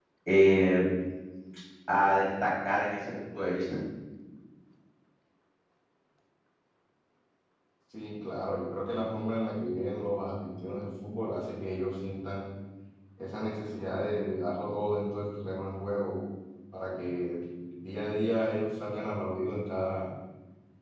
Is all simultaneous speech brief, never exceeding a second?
Yes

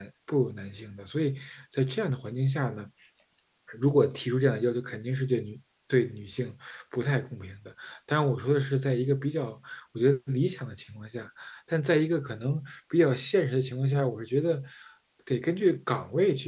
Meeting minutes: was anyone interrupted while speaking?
No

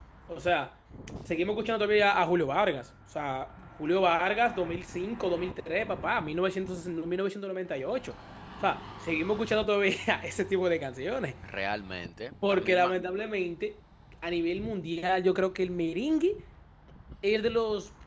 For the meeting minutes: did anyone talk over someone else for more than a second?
No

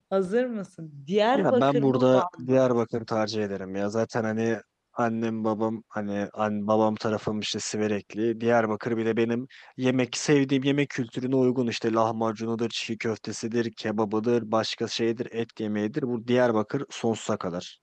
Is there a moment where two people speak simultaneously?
Yes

